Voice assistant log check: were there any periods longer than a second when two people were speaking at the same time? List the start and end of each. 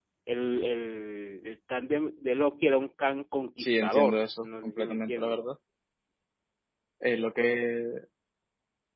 3.6-5.4

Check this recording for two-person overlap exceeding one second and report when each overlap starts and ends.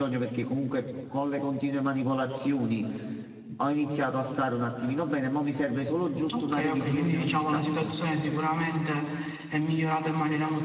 6.4-7.9

